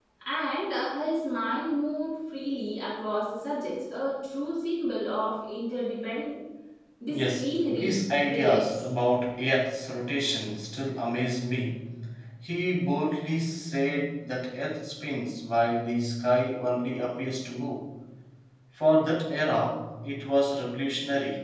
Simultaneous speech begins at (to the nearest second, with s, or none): 7 s